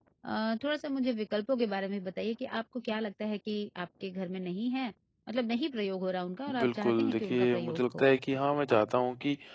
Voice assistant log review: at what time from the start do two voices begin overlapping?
6 s

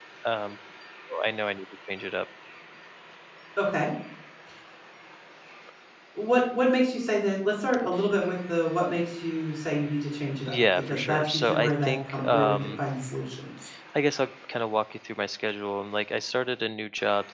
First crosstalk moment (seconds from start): 10 s

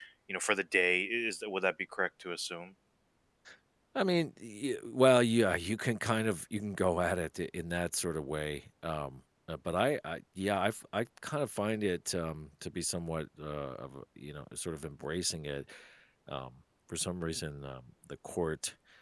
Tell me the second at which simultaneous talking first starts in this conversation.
none

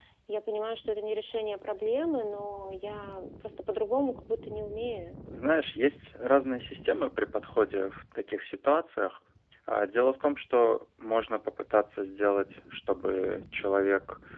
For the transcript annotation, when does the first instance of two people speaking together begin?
none

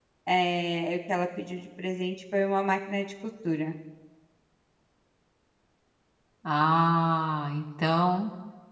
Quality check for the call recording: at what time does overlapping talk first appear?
none

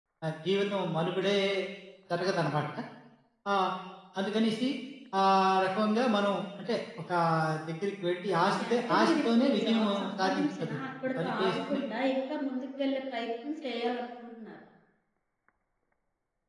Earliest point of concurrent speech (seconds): 9 s

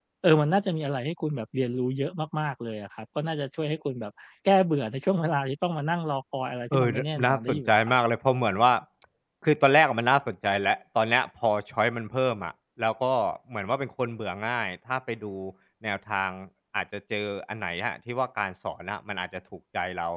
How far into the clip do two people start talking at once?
7 s

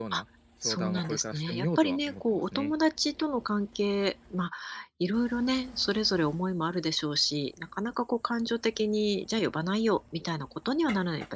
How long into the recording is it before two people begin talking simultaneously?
1 s

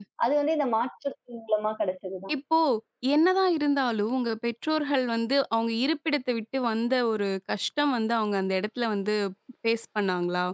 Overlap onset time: none

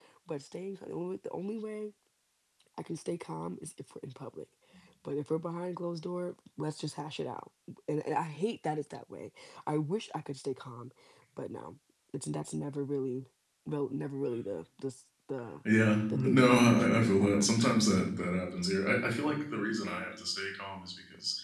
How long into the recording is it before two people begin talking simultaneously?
16 s

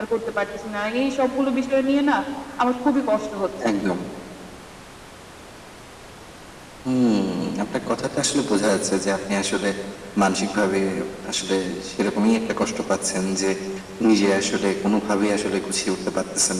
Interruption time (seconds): none

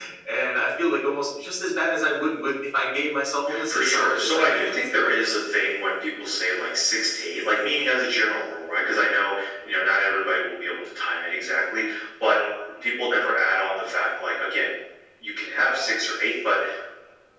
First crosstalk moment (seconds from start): 3 s

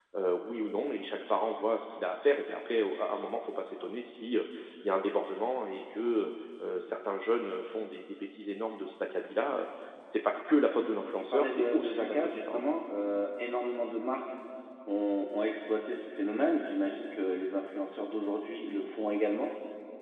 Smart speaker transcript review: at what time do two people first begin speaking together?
11 s

